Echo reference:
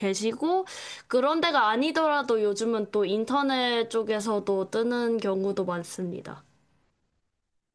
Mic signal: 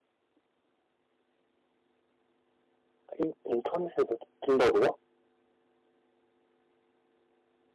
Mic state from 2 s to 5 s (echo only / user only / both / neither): user only